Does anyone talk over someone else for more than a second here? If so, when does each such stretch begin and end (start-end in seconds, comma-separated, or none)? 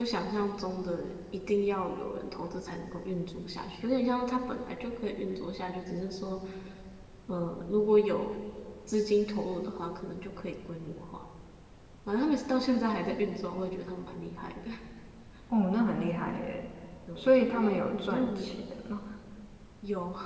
17.2-18.6